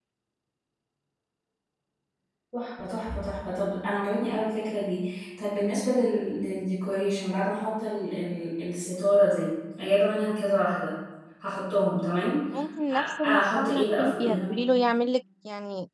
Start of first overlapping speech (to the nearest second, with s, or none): 13 s